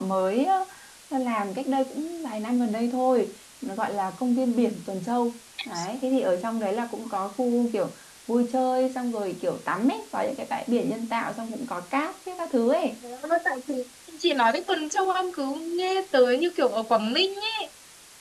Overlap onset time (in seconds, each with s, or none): none